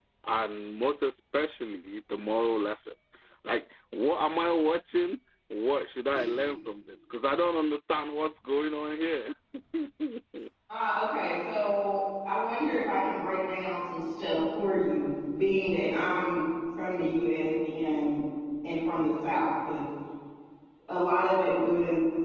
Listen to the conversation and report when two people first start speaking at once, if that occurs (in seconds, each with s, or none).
none